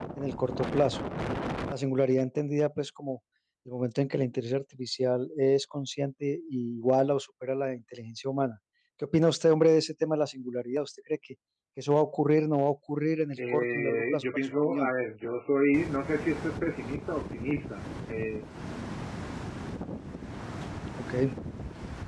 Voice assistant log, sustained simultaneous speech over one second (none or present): present